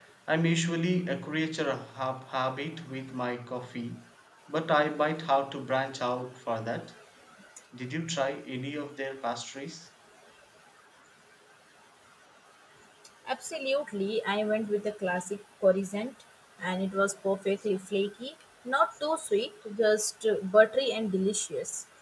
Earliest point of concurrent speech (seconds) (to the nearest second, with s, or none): none